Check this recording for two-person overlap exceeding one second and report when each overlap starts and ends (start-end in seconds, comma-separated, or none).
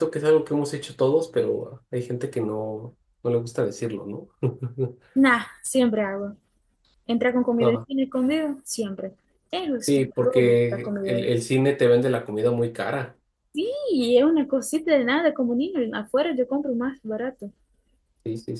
9.8-11.3